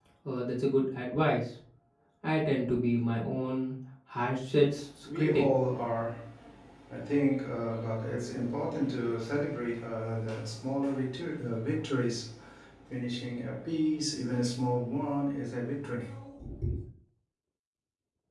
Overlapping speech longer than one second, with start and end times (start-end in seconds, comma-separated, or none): none